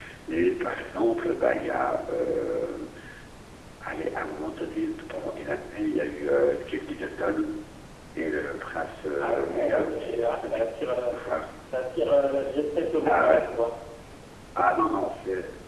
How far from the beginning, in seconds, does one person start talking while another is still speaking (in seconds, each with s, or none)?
9.2 s